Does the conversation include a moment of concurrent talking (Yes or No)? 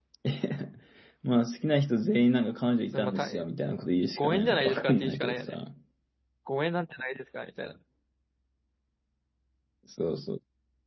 Yes